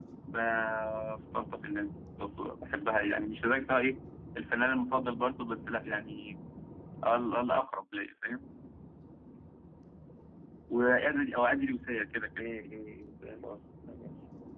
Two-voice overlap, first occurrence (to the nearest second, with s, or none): none